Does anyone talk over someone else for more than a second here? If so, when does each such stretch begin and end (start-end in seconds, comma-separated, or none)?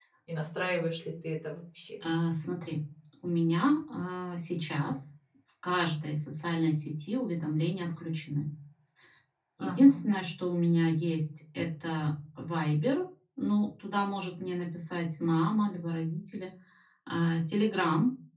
none